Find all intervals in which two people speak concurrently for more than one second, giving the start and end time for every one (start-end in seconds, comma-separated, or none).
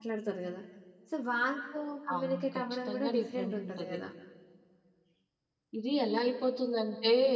2.1-4.0